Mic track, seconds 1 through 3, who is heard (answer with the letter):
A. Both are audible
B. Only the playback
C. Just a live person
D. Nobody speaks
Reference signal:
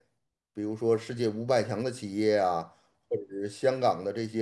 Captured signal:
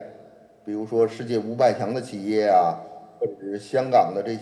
B